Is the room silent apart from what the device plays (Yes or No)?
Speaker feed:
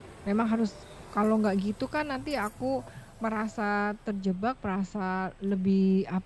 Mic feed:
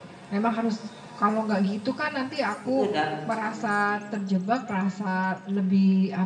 No